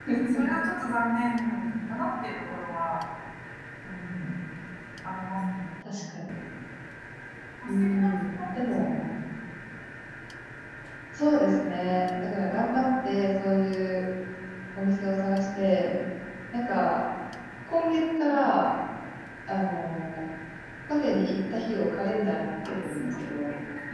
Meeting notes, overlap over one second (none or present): present